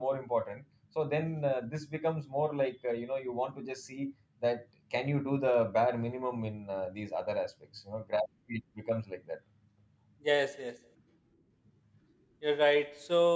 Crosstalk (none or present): none